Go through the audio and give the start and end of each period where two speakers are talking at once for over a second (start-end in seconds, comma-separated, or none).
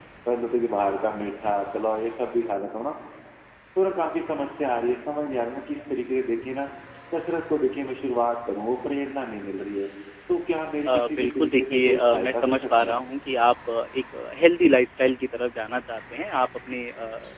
10.9-13.0